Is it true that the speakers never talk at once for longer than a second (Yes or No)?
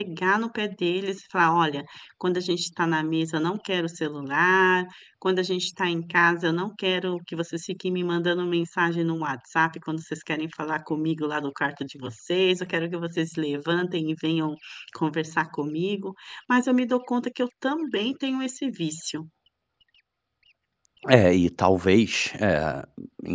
Yes